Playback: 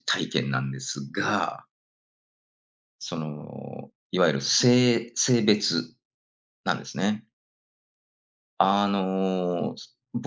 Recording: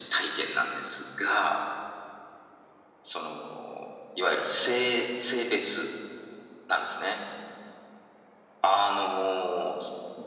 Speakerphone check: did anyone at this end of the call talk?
No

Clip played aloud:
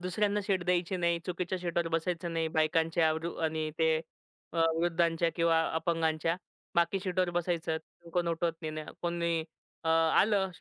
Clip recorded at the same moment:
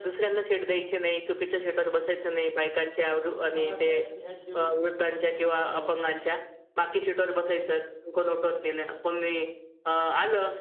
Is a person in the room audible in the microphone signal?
Yes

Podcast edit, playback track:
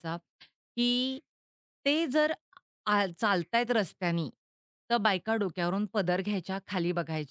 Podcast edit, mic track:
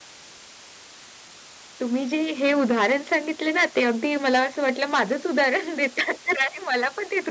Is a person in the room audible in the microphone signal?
Yes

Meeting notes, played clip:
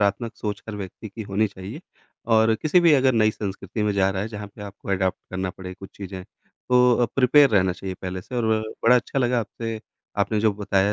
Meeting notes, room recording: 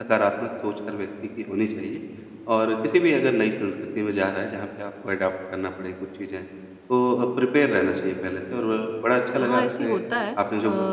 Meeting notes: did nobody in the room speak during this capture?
No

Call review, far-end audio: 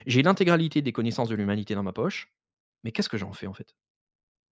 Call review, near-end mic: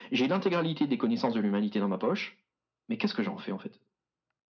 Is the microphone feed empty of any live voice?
Yes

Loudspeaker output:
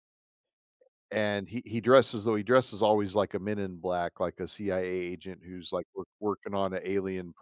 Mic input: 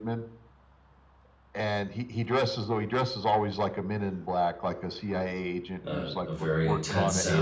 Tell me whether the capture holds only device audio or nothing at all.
No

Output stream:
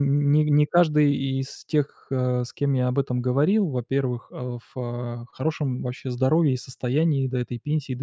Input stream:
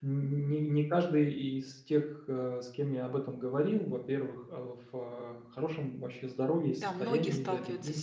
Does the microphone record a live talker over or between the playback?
Yes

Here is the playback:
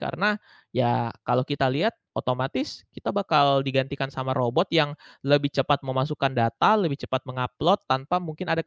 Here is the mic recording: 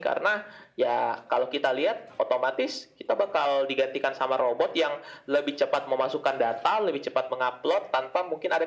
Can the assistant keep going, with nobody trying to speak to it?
Yes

